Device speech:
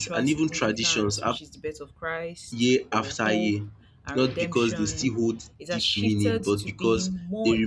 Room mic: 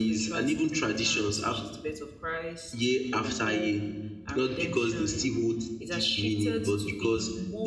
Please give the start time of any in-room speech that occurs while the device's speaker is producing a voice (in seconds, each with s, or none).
none